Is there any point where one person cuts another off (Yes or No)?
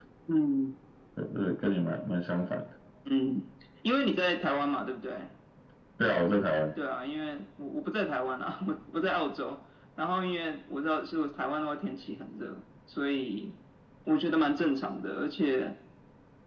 No